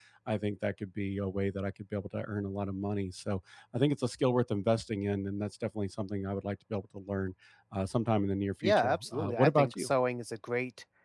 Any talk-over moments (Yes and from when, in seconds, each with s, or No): Yes, from 8.6 s